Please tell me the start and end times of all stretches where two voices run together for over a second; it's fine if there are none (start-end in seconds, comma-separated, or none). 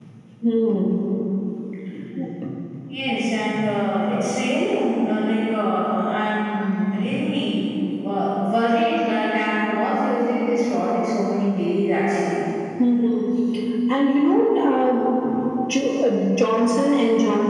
none